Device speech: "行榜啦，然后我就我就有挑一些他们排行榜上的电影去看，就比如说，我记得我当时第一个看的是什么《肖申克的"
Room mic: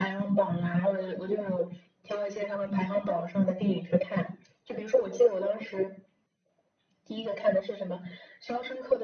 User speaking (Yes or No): No